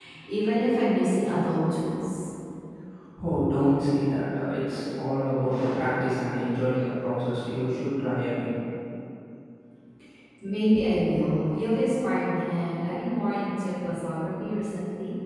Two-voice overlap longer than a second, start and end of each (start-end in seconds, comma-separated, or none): none